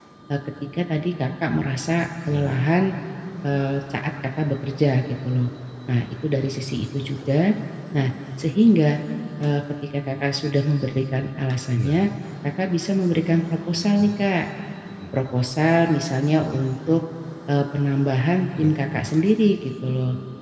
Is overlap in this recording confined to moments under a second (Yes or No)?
Yes